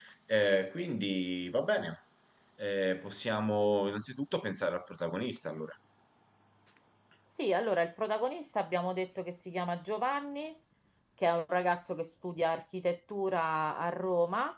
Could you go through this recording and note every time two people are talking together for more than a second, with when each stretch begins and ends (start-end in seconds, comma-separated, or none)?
none